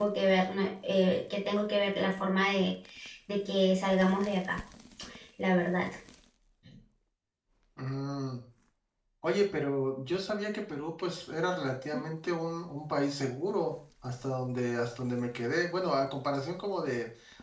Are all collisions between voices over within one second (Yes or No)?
Yes